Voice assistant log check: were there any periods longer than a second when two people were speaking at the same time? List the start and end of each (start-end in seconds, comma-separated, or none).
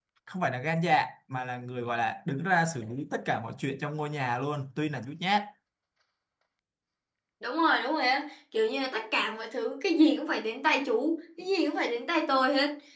none